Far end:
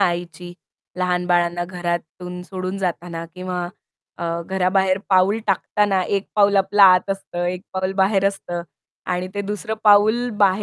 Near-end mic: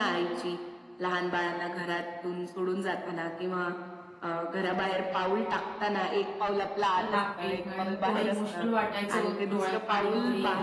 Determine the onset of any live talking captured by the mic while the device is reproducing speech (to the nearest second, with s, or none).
7 s